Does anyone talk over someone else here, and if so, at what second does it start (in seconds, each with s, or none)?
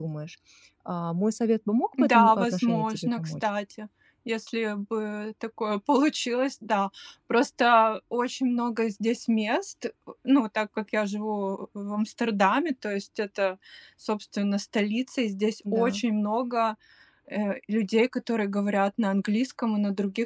2.0 s